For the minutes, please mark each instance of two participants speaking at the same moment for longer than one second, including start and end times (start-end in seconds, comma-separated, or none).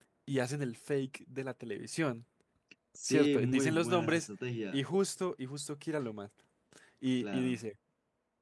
3.0-4.3